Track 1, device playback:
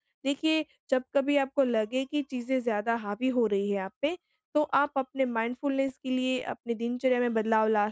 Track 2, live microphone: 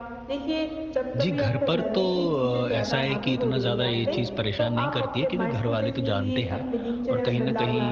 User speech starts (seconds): 1.1 s

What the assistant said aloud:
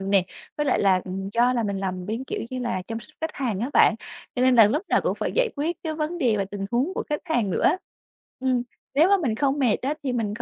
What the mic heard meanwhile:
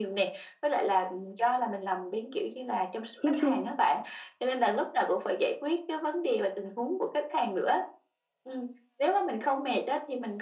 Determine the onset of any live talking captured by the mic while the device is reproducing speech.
3.2 s

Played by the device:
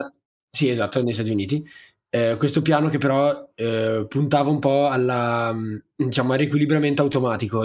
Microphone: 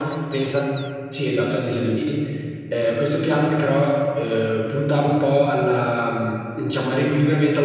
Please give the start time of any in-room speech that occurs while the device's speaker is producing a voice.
none

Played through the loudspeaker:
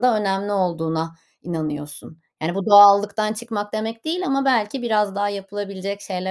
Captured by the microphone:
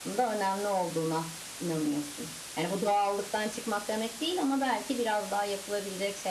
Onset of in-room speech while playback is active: none

